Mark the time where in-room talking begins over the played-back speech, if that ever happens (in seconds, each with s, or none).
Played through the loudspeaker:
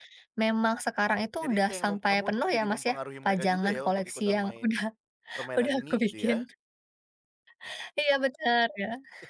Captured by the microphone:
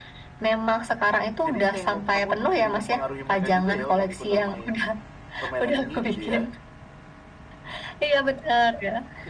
none